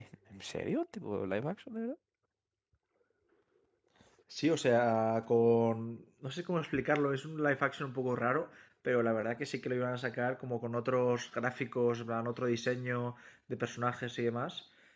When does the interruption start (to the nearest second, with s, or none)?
none